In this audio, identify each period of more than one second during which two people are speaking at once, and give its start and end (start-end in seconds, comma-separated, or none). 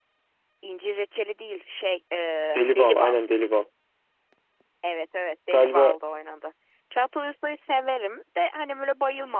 none